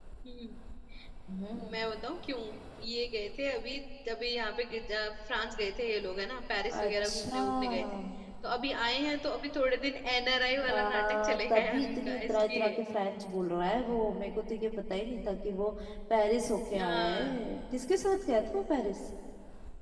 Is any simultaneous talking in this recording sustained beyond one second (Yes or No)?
Yes